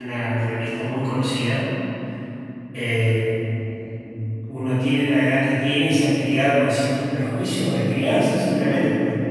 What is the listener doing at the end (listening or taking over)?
listening